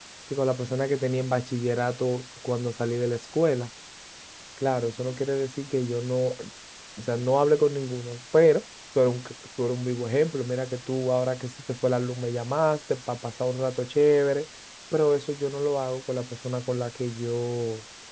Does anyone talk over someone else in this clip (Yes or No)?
No